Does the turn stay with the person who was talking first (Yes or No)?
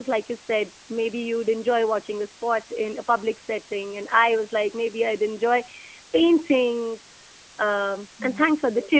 Yes